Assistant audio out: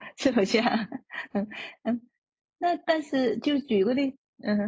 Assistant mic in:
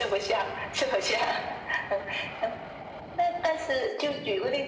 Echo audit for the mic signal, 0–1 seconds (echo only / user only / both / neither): echo only